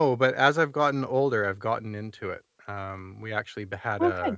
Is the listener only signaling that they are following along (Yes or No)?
Yes